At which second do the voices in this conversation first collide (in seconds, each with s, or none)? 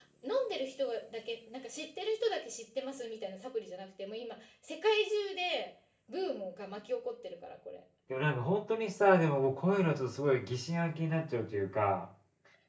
none